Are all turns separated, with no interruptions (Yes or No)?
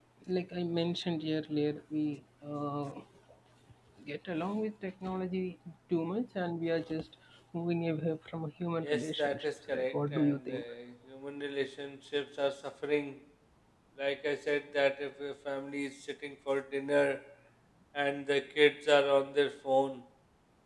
No